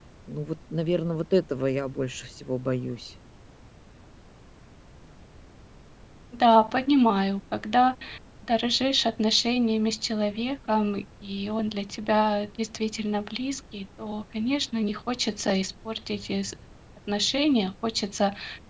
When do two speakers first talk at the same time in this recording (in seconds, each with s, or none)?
none